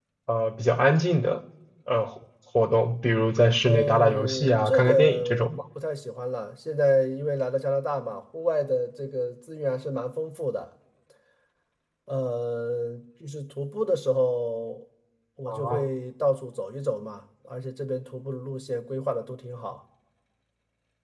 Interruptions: present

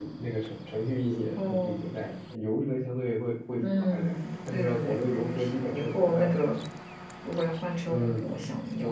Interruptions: present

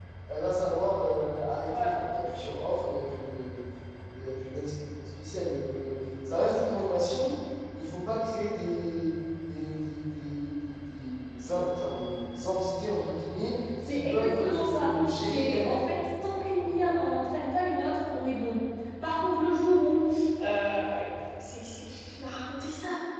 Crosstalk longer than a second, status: present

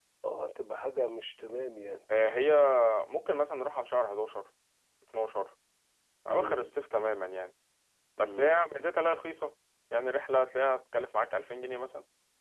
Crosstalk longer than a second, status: none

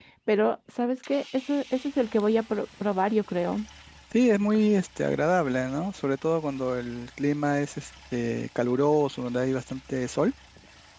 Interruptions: none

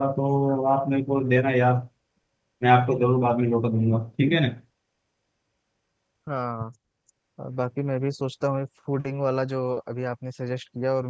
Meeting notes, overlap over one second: none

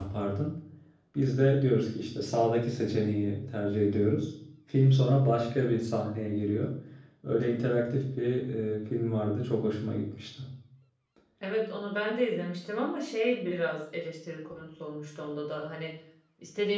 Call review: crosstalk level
none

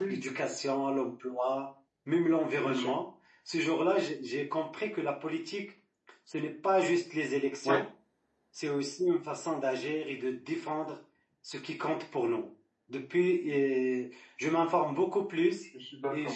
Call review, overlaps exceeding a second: none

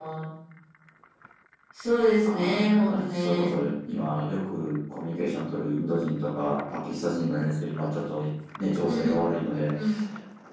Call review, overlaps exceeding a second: present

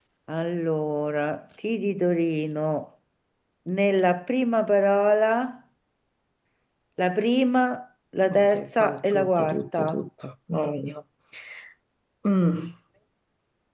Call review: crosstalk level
present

